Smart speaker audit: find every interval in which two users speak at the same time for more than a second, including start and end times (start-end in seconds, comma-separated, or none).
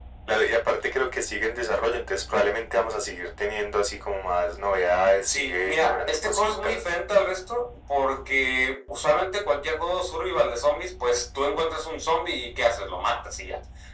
5.3-6.8